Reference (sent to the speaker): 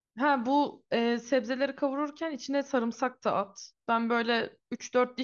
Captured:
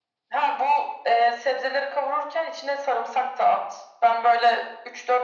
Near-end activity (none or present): none